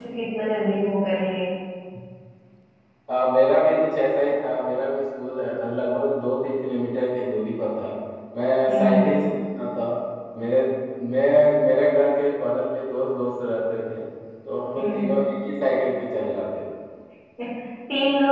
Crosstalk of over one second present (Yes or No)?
No